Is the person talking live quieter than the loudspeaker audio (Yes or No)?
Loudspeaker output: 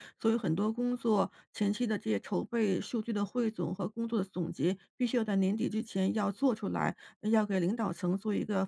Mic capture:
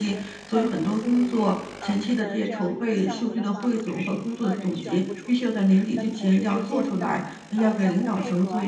Yes